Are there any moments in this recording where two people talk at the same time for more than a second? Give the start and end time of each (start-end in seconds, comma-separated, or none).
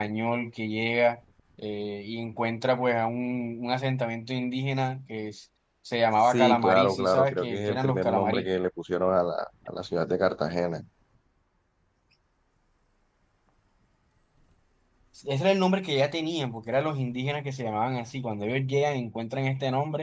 6.2-8.5